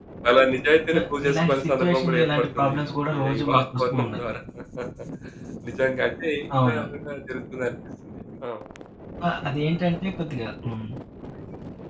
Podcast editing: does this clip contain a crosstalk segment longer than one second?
Yes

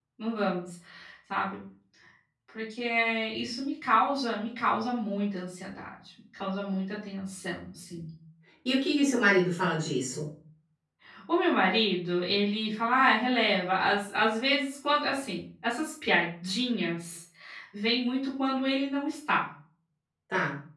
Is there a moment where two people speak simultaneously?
No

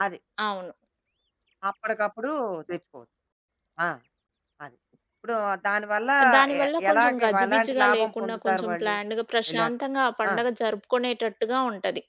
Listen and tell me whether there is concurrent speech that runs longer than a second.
Yes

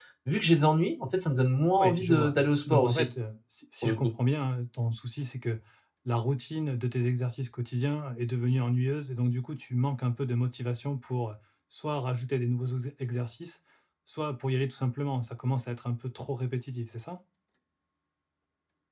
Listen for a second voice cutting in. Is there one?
Yes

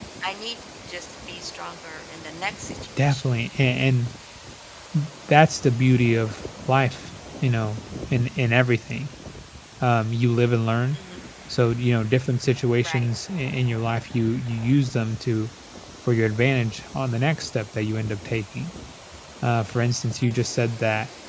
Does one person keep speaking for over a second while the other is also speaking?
No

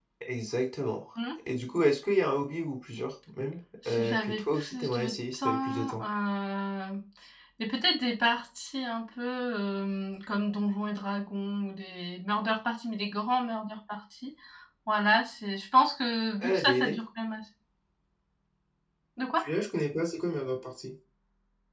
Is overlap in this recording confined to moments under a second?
No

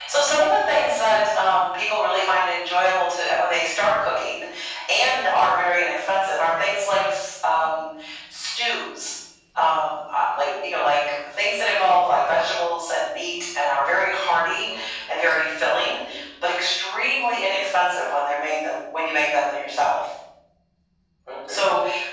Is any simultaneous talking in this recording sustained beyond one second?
No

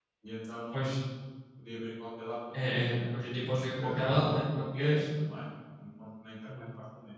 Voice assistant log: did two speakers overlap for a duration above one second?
Yes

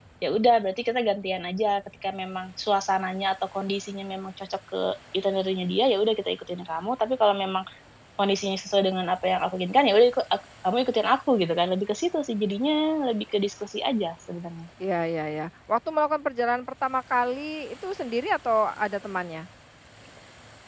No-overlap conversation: Yes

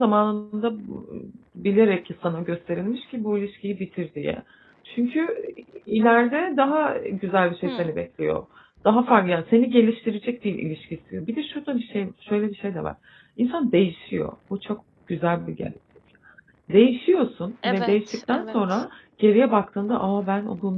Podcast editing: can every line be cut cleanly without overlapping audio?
No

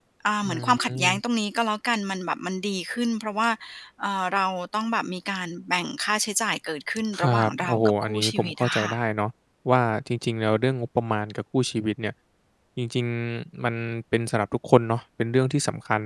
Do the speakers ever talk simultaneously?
Yes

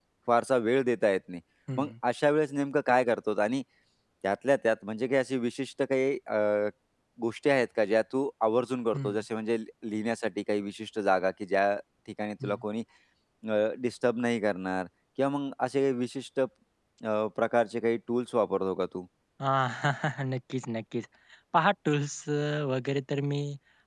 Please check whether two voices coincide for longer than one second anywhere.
No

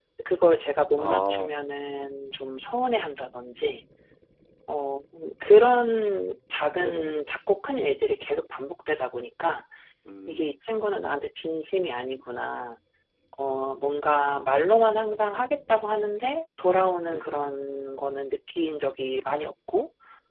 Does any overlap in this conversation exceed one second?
No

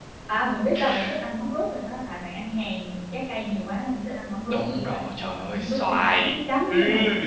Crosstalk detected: Yes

